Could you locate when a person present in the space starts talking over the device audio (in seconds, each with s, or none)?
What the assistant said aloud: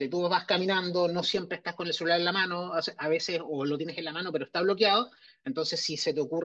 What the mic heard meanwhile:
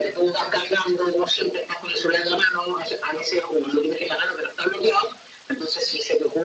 none